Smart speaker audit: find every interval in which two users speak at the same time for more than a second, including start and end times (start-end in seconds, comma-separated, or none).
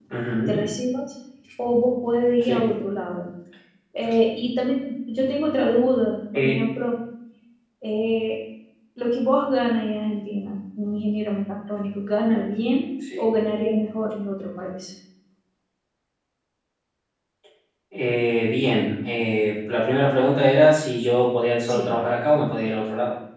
none